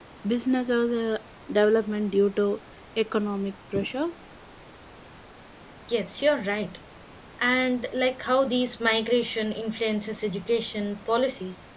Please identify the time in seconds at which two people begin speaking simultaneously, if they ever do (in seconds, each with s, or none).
none